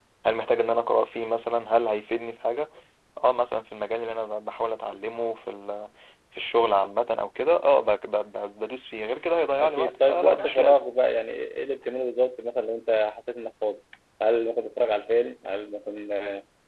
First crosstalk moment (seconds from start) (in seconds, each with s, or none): 9.6 s